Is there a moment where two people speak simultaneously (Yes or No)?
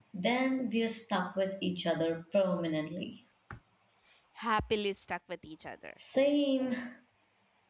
No